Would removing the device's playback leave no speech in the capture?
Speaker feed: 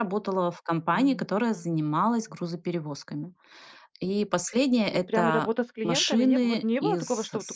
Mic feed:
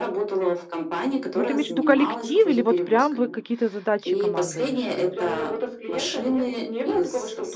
No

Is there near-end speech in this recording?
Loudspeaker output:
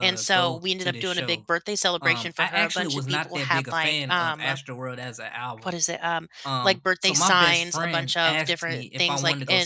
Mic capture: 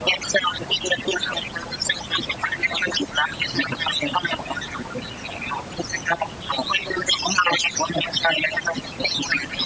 No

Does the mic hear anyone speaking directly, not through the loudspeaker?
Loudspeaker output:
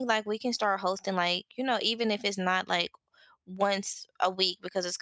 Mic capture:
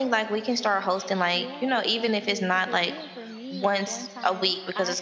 Yes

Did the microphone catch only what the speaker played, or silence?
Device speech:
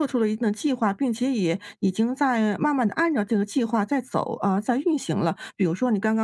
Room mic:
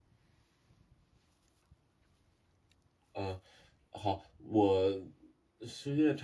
No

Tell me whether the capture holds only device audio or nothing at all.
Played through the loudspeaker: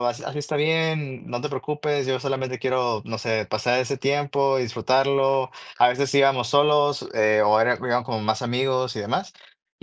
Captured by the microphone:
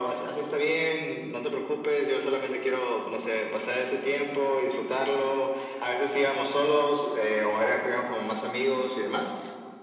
Yes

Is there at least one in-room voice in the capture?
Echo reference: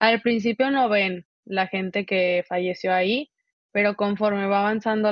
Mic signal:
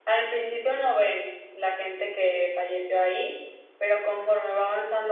No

